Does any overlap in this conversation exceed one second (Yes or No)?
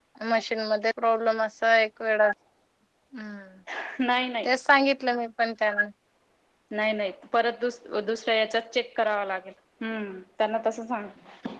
No